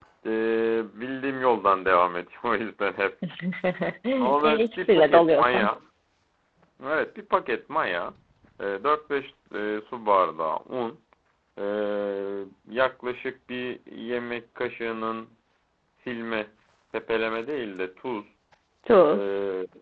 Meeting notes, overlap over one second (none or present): present